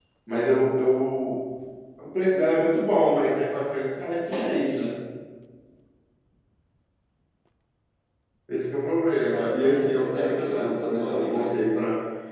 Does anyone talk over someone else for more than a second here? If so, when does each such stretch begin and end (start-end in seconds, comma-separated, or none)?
9.3-11.6